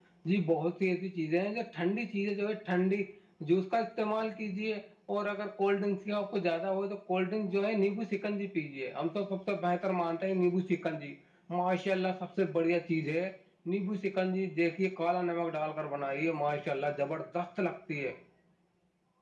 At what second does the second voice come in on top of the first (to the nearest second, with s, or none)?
none